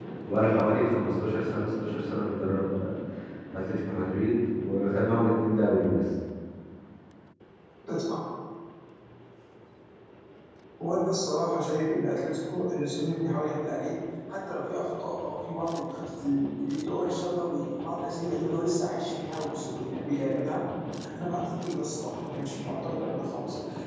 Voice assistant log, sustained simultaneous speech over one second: none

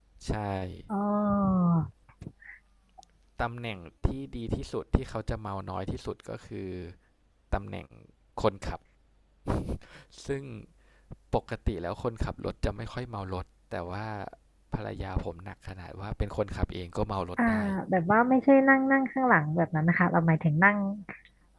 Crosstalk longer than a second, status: none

